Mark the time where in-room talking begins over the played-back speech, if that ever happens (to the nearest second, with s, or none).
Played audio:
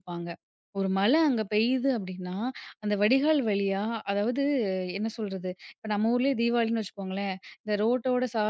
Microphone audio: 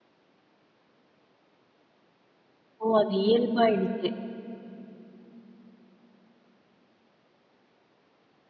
3 s